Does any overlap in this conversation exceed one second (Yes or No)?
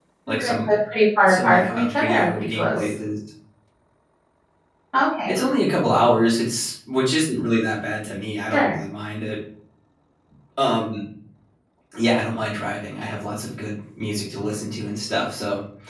Yes